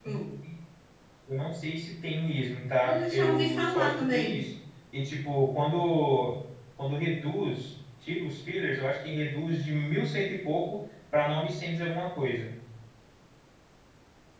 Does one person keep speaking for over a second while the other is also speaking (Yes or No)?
Yes